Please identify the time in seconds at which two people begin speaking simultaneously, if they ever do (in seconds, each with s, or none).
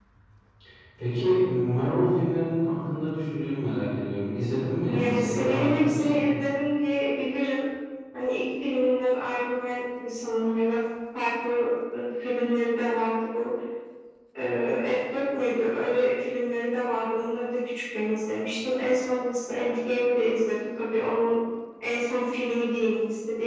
4.8 s